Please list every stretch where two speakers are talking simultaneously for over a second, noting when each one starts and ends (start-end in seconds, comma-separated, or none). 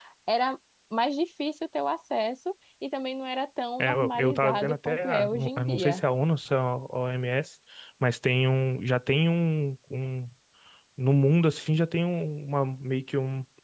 3.8-6.0